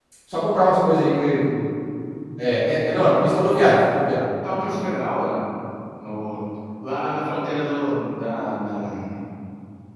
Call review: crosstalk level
none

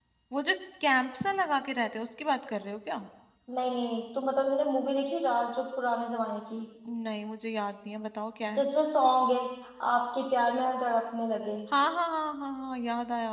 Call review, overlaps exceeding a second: none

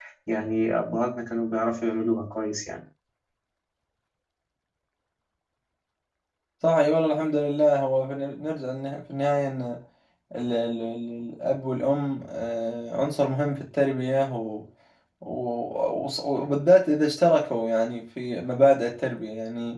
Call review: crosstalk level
none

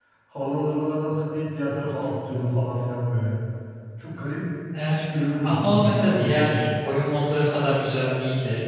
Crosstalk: present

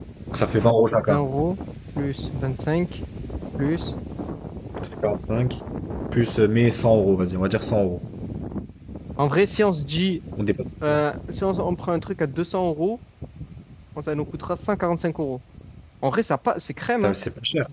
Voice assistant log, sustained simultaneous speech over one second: none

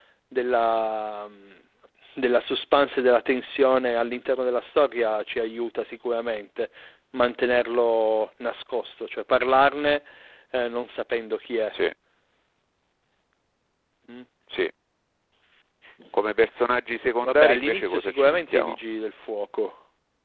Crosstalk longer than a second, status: present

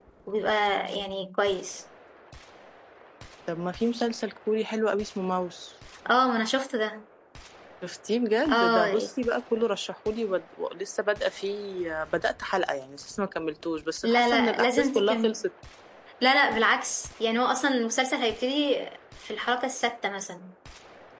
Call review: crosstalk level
present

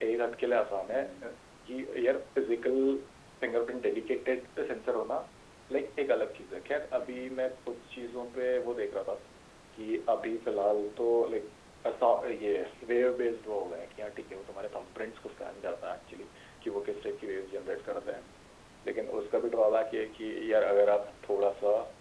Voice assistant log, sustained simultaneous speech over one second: none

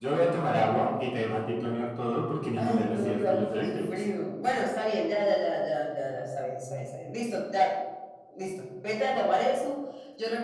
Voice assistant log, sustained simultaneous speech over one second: present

